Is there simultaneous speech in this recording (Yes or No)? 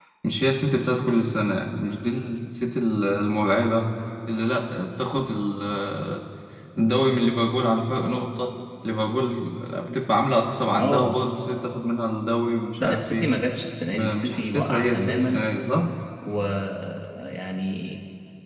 Yes